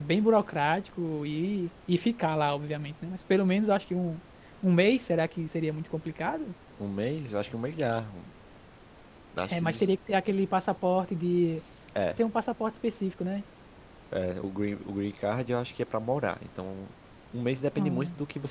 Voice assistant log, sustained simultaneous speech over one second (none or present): none